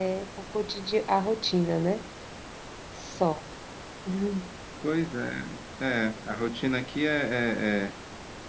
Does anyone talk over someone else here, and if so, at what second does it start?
none

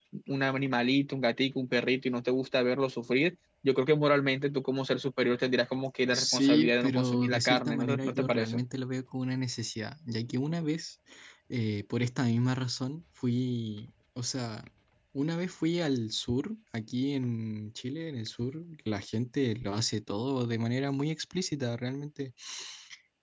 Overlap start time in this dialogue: 6.1 s

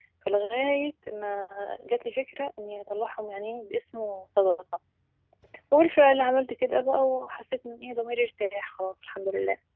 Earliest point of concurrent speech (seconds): none

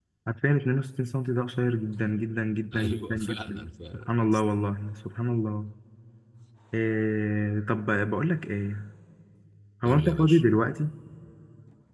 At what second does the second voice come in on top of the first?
2.7 s

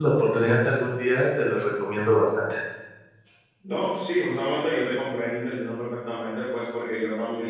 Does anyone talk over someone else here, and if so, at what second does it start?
none

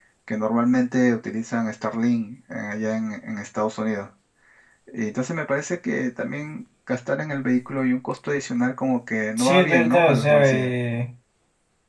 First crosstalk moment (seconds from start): 9.4 s

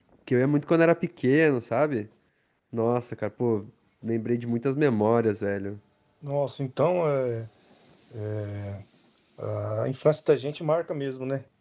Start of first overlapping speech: none

